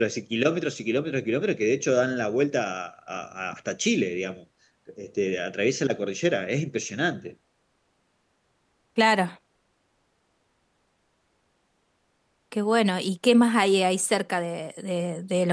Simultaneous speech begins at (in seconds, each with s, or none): none